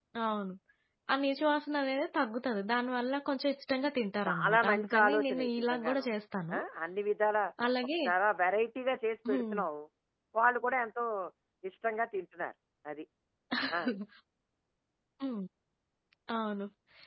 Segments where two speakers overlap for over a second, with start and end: 4.2-6.0

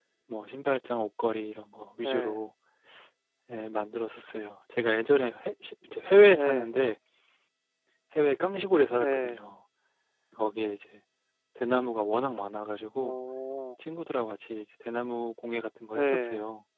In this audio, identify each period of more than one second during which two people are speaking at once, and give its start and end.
none

